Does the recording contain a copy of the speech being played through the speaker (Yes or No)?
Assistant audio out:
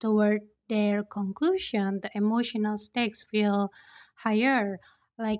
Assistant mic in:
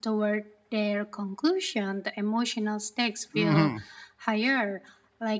Yes